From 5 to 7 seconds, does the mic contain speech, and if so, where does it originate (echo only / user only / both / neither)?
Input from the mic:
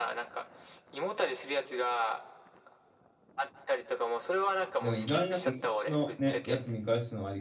both